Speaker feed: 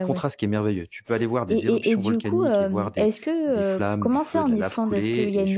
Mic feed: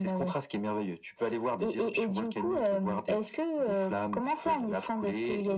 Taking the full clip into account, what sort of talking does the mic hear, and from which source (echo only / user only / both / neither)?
echo only